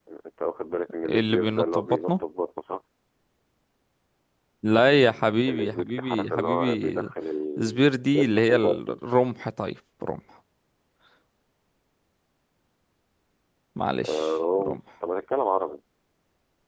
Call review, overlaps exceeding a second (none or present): present